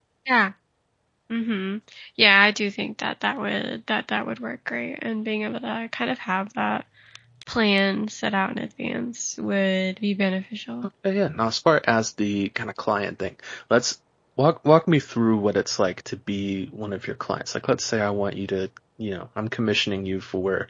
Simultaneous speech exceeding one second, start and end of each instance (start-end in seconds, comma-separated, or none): none